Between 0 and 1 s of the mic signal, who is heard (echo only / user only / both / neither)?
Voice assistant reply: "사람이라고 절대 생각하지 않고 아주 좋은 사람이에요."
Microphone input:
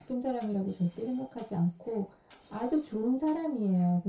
echo only